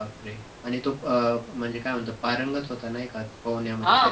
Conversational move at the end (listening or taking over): taking over